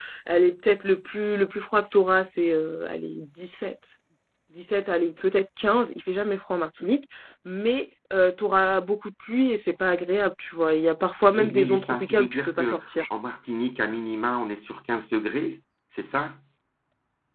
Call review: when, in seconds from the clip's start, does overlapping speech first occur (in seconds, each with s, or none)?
11.3 s